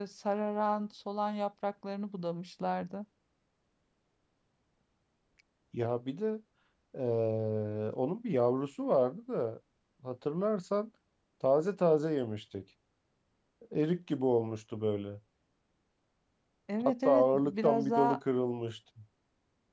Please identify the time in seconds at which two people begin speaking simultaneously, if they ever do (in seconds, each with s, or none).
16.8 s